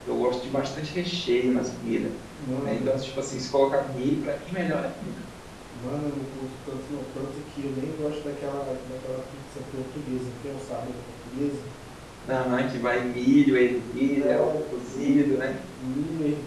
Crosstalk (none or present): present